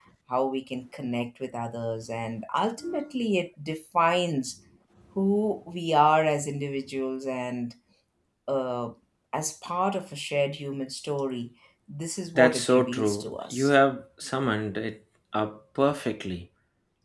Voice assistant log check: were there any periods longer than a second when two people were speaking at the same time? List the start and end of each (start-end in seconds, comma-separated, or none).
12.4-13.7